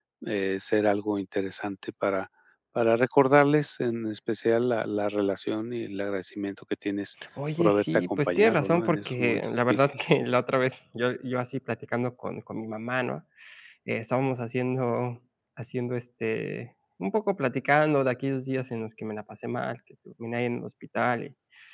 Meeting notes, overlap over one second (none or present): present